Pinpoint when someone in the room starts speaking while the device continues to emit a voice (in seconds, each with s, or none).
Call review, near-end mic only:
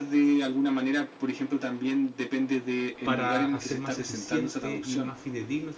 3.0 s